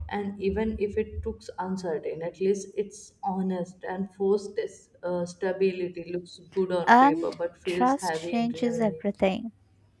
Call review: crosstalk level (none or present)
present